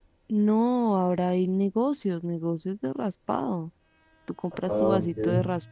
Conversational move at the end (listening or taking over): listening